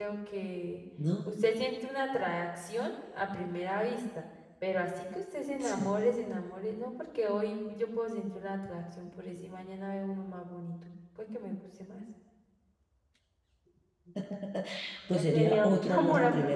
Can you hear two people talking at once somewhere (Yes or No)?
Yes